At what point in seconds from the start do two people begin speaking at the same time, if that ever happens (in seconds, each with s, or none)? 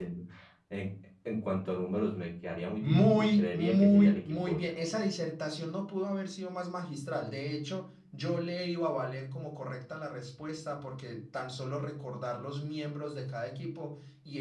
2.8 s